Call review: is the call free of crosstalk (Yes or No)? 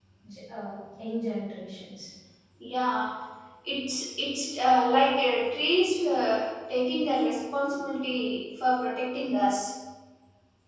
Yes